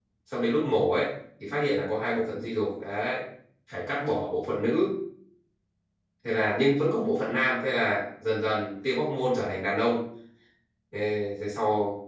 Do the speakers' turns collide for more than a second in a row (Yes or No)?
No